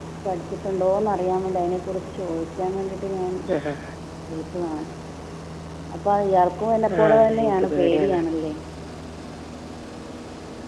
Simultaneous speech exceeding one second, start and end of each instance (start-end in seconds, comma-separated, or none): 7.0-8.2